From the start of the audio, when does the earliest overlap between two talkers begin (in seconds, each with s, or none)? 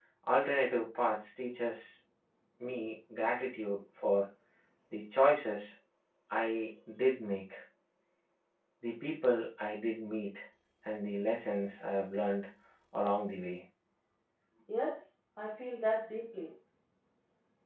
none